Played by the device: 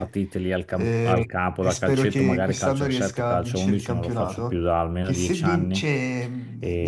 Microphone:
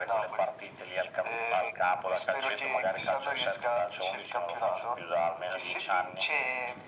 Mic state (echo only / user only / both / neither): echo only